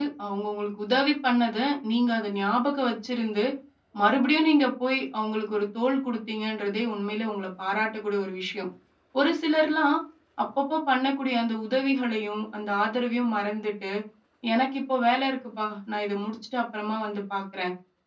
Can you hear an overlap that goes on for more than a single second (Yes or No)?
No